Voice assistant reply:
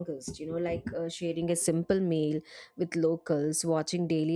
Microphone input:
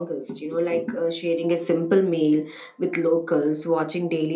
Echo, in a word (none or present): present